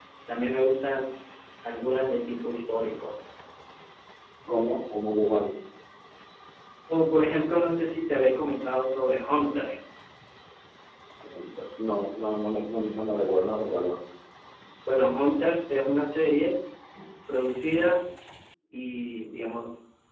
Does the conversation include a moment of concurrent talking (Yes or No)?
No